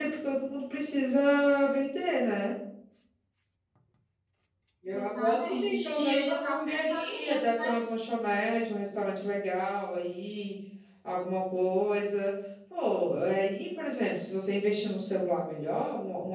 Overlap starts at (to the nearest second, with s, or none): 5 s